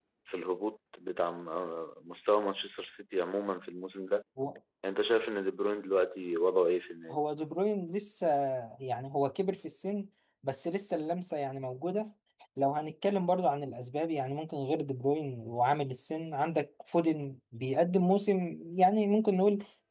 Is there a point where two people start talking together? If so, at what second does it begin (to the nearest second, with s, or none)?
none